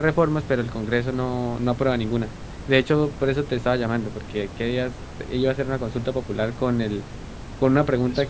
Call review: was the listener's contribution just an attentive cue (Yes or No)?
Yes